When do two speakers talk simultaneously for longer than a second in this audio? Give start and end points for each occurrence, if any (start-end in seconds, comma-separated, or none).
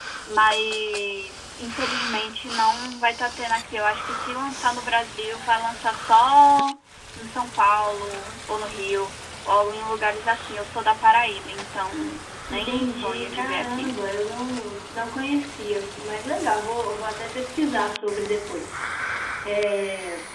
12.5-13.9